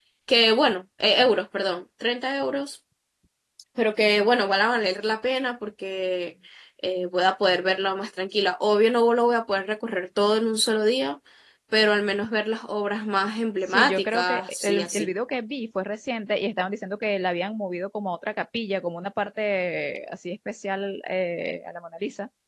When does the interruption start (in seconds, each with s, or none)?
13.7 s